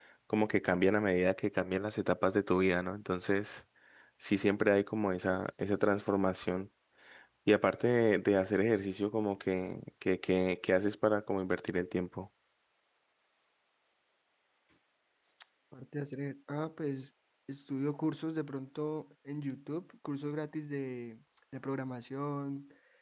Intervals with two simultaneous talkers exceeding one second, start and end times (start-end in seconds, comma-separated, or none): none